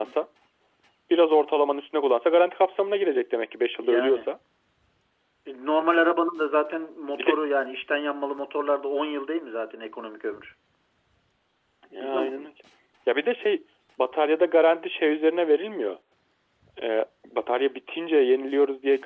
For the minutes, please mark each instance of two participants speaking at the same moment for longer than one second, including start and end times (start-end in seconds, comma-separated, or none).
none